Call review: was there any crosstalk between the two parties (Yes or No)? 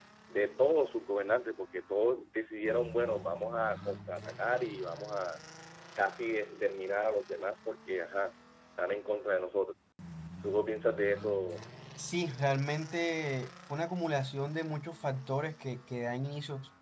No